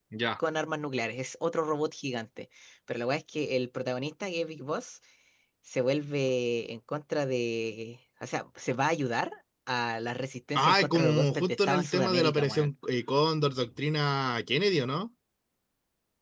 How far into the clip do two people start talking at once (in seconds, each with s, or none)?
10.6 s